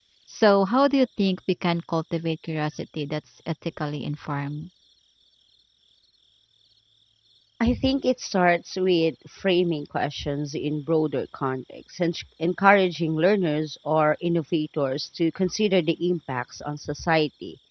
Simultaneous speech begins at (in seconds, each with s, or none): none